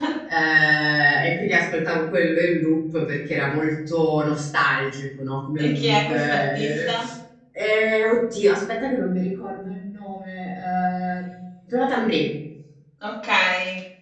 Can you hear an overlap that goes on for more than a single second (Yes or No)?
Yes